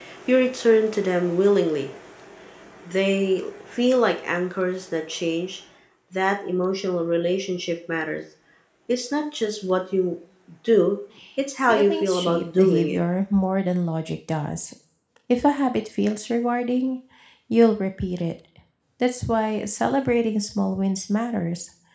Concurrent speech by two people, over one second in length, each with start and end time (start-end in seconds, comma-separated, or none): 11.6-13.0